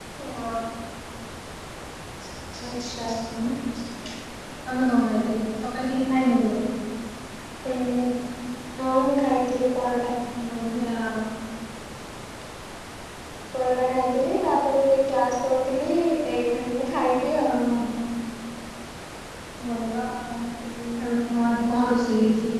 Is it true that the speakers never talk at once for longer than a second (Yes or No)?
Yes